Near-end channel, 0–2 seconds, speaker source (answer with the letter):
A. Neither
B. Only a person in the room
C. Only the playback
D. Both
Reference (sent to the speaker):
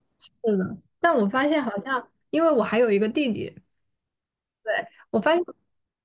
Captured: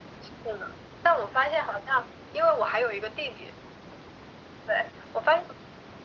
C